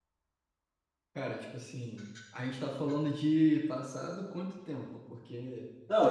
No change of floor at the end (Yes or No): No